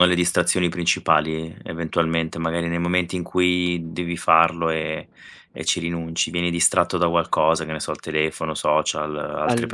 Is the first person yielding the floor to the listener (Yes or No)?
No